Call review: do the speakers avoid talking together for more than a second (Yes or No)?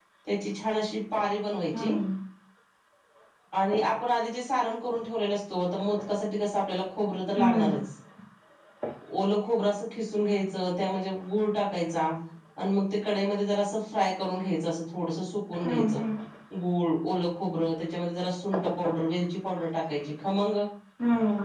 Yes